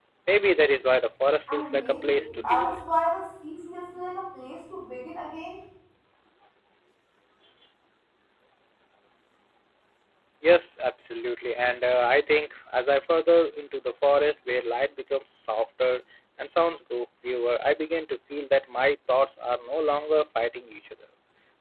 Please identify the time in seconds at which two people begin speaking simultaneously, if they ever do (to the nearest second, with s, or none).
1 s